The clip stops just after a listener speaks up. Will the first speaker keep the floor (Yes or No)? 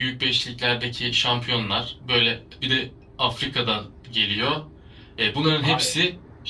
Yes